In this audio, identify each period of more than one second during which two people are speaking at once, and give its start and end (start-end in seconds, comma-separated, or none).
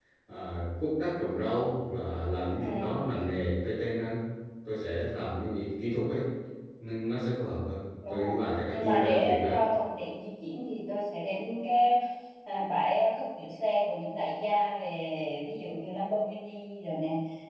8.1-9.6